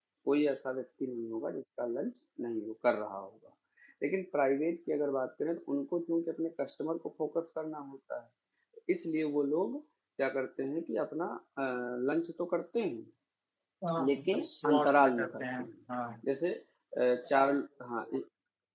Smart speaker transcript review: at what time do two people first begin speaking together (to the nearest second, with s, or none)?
14 s